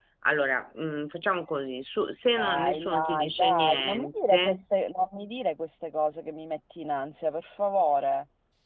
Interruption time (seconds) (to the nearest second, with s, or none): 2 s